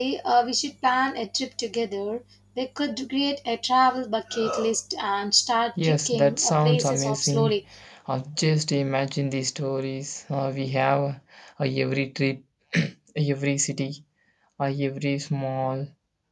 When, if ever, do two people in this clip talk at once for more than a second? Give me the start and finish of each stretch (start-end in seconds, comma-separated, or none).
5.8-7.6